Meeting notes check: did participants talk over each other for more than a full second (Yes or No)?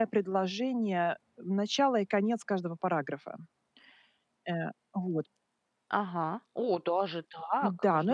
No